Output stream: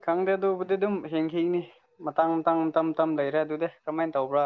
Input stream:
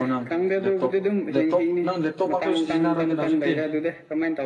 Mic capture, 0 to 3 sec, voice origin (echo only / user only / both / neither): both